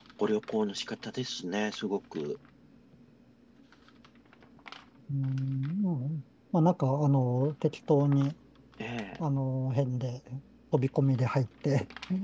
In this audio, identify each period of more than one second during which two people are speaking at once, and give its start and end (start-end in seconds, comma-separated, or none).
none